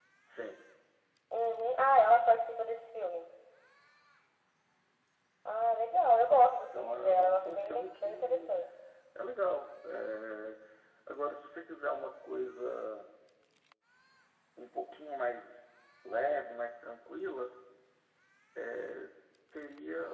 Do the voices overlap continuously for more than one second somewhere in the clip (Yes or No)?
Yes